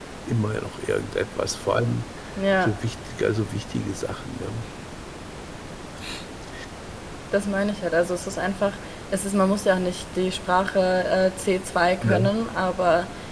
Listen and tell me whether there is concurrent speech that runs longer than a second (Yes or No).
No